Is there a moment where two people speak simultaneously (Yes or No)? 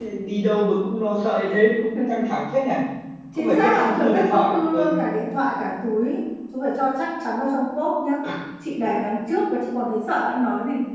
Yes